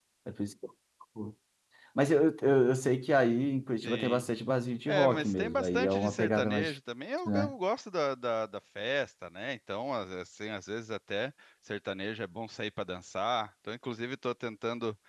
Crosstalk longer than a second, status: present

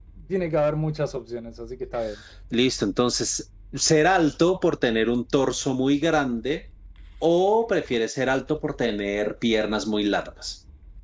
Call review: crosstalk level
none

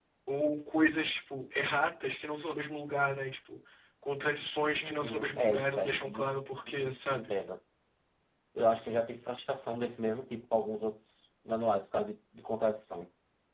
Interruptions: present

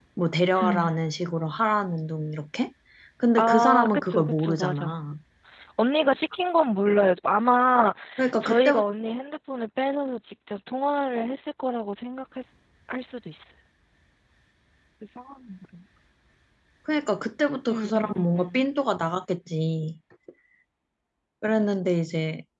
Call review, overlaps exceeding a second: present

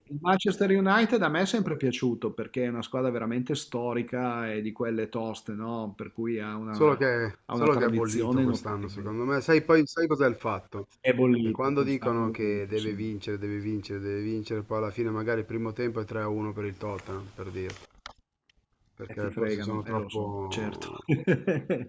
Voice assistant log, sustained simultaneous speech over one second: present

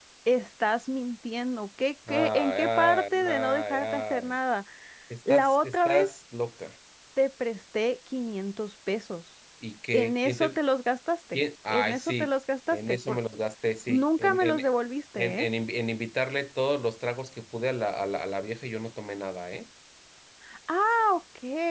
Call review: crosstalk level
present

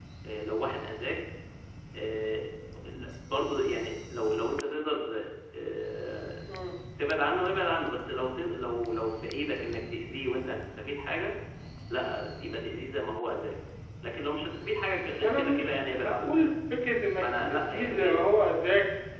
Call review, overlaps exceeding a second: present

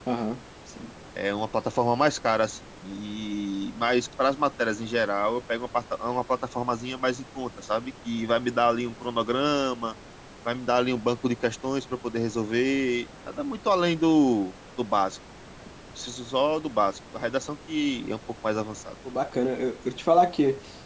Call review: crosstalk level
none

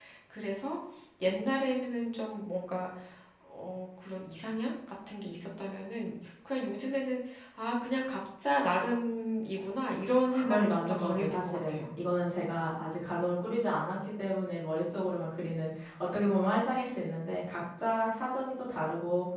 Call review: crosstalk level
present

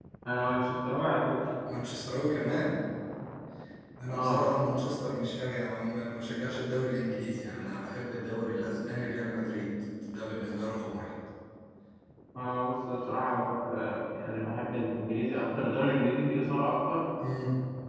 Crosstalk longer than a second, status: none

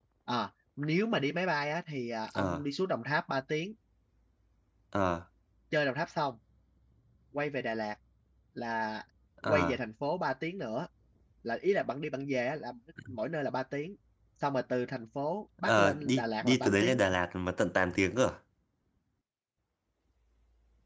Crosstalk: present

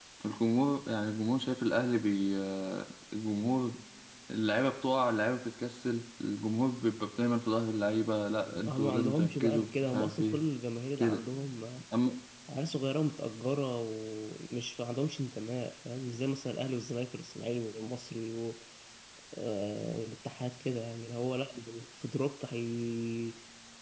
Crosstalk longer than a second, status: present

